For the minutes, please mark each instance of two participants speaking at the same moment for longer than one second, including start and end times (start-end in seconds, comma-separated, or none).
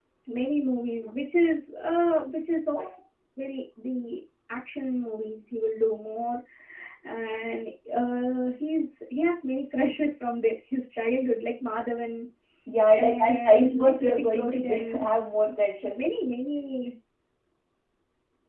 12.9-15.1